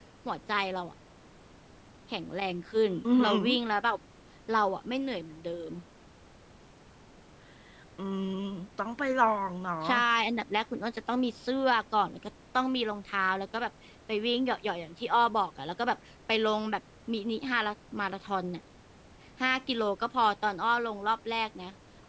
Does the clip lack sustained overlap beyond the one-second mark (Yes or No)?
Yes